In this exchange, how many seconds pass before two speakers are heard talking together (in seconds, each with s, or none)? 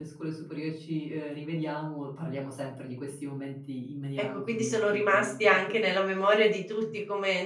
4.3 s